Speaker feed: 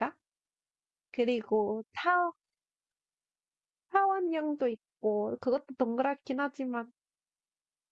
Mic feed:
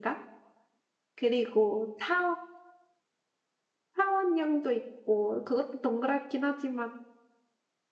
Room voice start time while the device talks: none

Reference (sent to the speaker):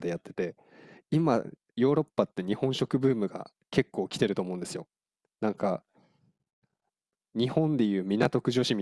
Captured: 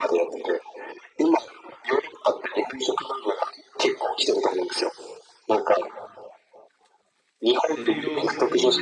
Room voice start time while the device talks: 7.5 s

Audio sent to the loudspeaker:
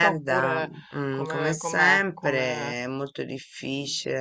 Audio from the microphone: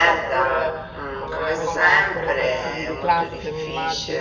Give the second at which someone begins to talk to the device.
1.5 s

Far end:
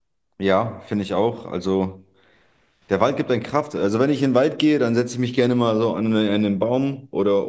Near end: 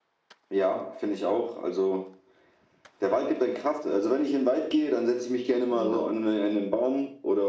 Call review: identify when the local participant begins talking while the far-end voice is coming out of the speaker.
5.7 s

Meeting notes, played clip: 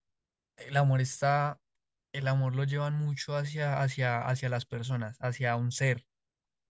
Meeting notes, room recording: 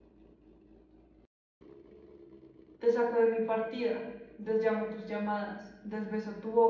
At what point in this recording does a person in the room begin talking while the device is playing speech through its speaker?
2.8 s

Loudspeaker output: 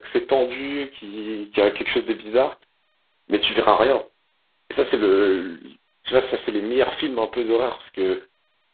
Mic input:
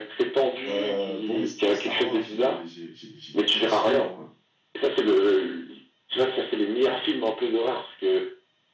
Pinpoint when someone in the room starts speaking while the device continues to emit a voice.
0.7 s

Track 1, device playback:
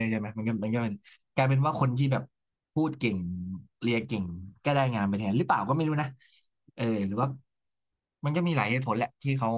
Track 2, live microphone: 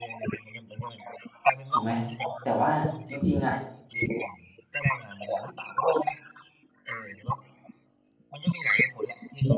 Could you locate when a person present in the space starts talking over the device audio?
1.7 s

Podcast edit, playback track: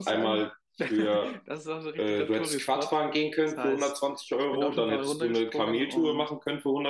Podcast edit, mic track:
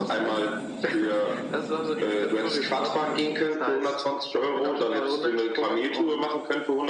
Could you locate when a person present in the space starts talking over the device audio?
none

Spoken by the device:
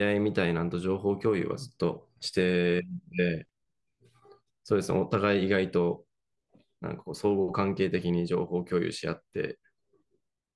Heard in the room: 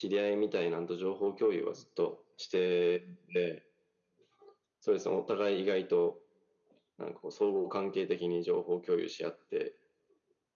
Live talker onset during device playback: none

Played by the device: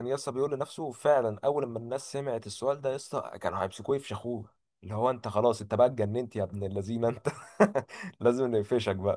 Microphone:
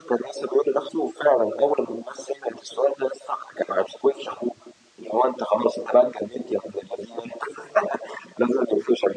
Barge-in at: none

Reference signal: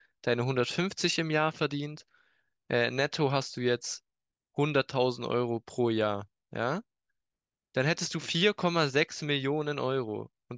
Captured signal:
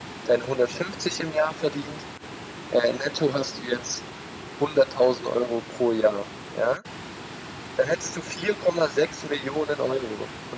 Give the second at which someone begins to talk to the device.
none

